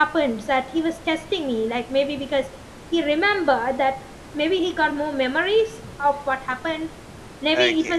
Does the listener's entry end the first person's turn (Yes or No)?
No